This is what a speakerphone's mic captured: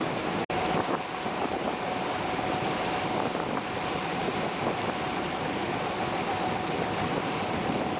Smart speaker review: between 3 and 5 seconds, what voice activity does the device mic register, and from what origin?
neither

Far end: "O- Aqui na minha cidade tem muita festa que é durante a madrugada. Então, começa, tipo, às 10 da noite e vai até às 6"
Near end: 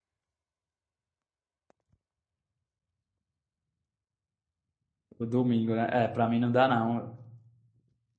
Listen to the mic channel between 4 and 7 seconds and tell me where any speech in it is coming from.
user only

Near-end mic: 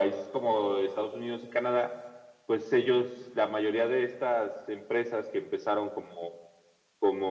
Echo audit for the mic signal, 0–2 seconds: echo only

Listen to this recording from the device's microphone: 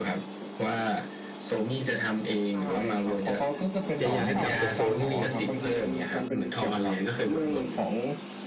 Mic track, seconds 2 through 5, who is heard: both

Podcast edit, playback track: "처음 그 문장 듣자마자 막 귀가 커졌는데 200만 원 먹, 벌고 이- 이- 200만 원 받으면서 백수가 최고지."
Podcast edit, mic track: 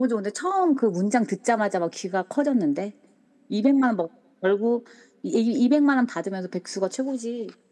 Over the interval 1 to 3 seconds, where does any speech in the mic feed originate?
echo only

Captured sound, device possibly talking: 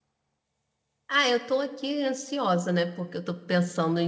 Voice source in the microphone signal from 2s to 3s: user only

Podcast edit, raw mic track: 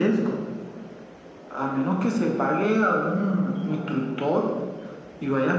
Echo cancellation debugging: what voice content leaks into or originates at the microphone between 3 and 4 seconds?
echo only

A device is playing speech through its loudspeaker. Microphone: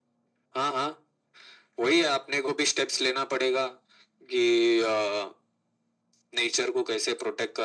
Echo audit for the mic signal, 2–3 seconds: echo only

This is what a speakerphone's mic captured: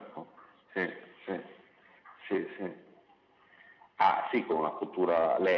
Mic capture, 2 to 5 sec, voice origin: echo only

